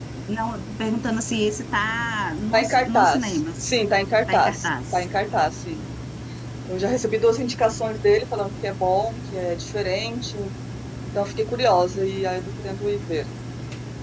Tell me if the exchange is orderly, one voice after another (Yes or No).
No